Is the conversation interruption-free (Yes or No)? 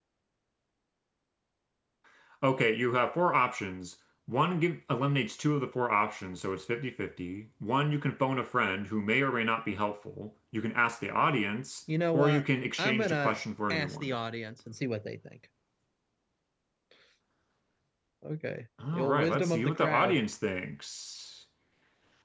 No